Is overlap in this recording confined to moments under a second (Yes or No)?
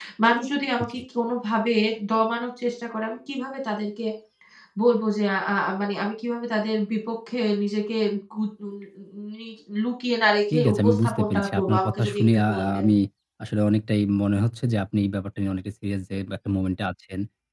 No